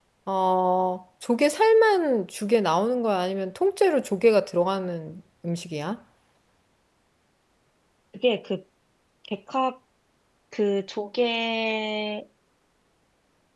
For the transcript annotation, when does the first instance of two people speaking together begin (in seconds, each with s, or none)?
none